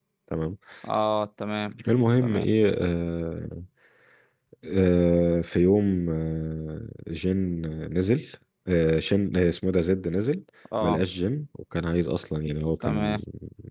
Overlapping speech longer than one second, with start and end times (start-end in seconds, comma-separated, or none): none